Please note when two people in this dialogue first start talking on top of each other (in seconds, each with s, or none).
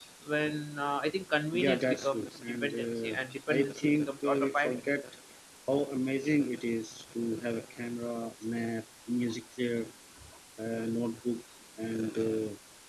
1.5 s